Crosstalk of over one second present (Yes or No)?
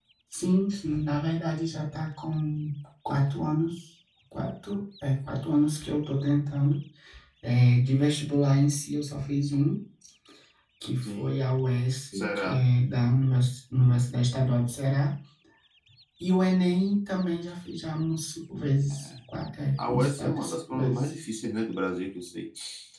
Yes